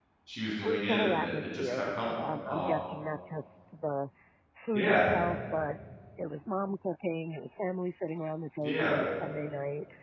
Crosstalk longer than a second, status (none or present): present